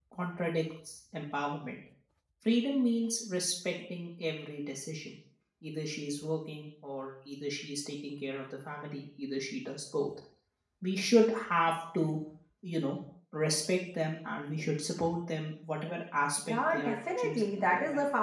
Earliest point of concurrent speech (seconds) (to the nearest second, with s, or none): 16 s